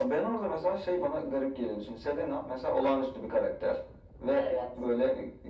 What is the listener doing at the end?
listening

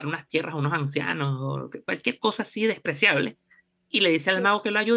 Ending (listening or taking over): listening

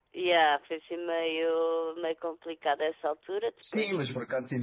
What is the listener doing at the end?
taking over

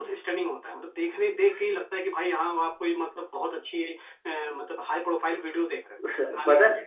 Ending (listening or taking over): taking over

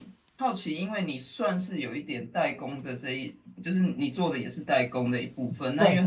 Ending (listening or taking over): listening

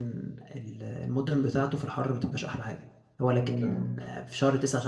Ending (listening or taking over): listening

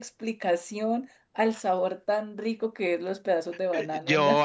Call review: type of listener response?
taking over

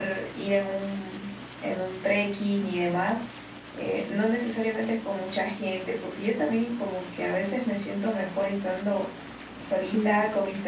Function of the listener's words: listening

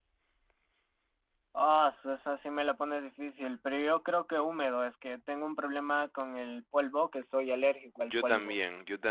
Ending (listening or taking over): taking over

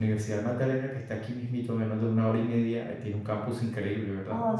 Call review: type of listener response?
taking over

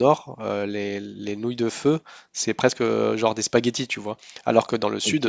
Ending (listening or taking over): listening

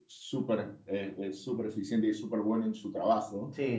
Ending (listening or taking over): taking over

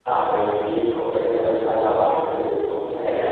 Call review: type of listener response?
taking over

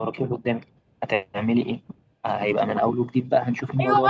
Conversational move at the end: taking over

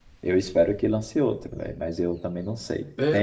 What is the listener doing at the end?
listening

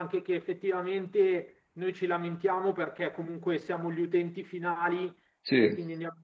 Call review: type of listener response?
listening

